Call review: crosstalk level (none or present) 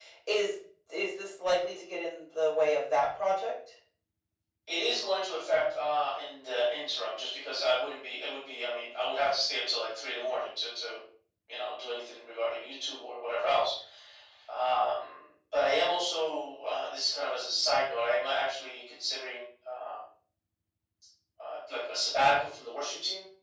none